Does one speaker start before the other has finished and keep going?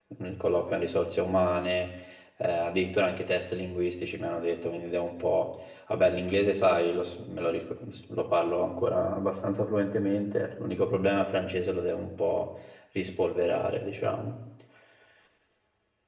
No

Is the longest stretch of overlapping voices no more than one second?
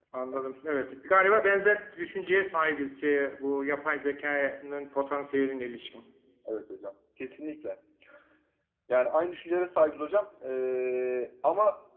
Yes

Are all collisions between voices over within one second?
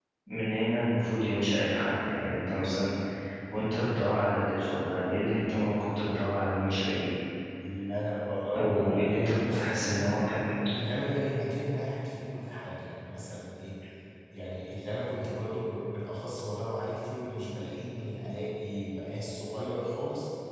No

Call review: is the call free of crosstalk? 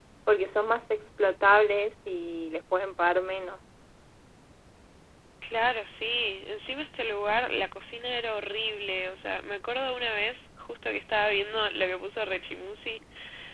Yes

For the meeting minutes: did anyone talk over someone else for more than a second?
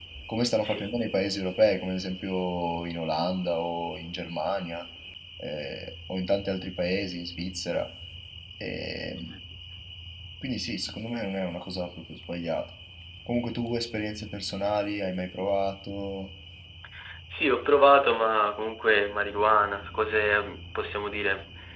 No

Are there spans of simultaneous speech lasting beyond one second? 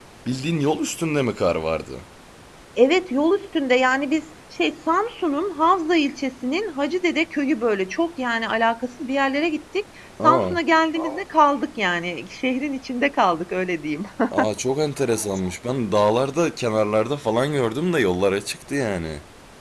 No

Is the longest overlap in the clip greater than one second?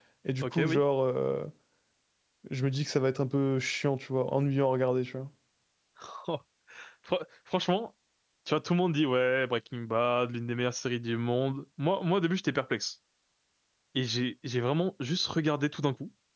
No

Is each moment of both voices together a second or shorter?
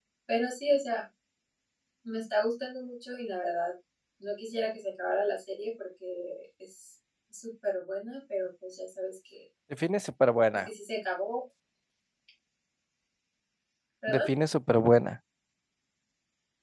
Yes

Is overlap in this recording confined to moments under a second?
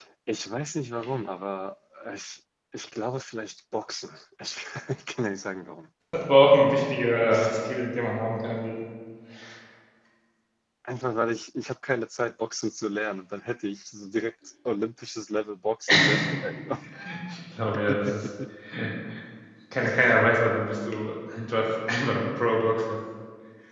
Yes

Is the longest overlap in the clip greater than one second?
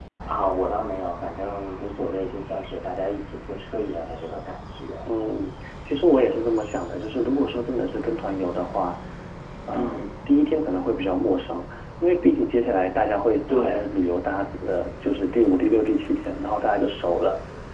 No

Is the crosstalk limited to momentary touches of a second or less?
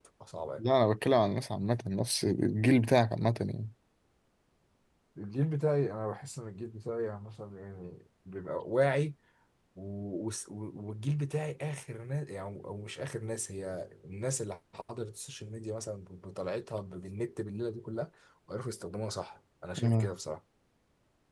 Yes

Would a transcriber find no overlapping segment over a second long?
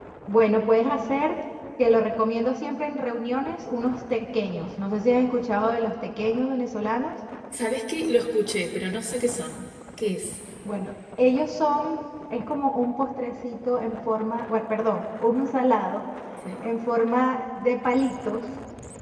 Yes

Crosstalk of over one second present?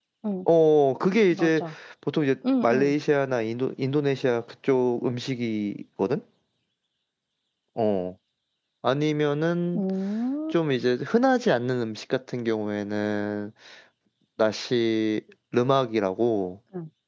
No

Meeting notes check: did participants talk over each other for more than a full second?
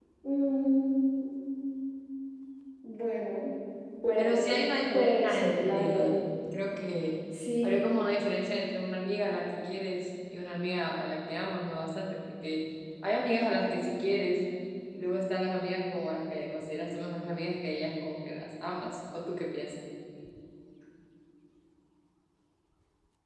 Yes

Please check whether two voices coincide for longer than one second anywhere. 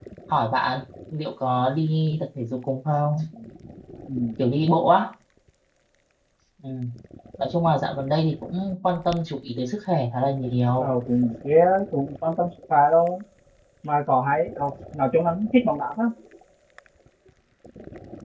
No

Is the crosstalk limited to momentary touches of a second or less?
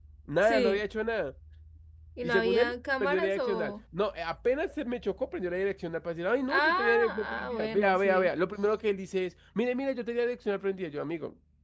No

